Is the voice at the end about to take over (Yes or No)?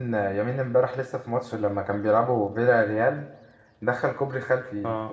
No